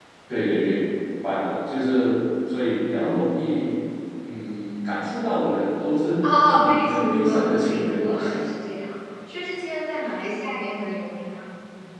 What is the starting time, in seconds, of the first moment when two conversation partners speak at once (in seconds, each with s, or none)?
6.2 s